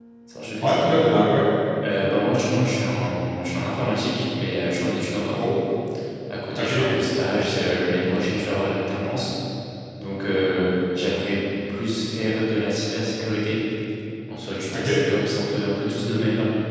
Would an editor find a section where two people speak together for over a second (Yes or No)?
No